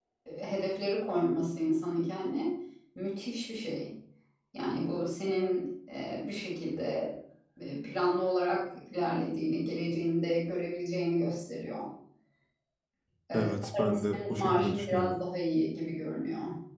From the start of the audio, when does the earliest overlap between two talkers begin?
13.3 s

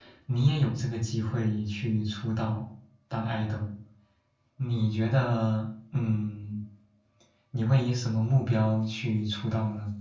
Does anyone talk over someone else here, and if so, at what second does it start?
none

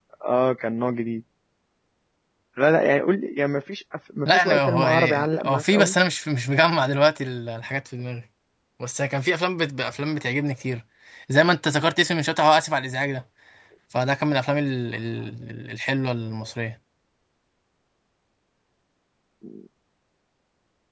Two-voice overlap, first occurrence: 4.2 s

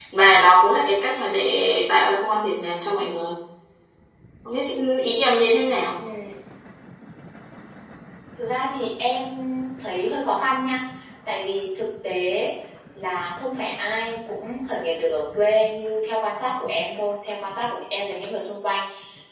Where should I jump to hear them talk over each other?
none

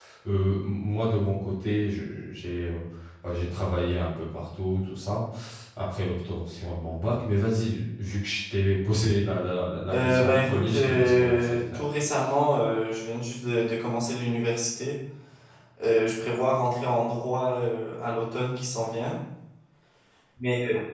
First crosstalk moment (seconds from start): 9.9 s

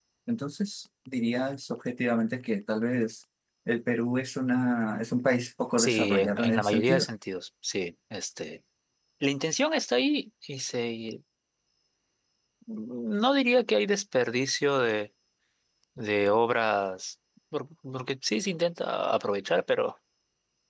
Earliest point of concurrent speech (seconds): 5.8 s

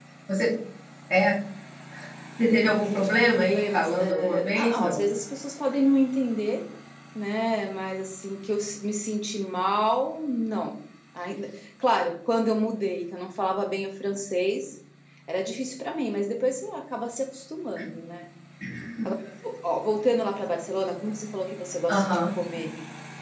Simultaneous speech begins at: 2.9 s

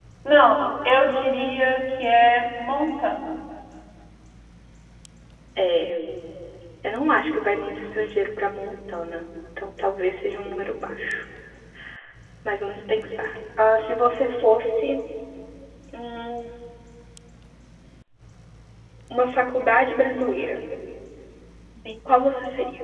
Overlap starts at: none

